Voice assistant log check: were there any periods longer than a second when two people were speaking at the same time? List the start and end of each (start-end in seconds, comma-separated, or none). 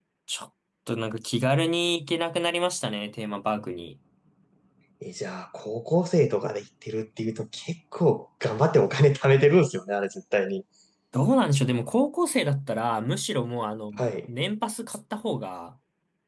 none